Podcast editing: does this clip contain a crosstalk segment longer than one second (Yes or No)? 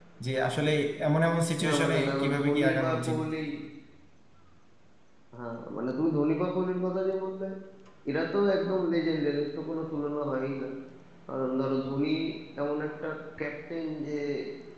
Yes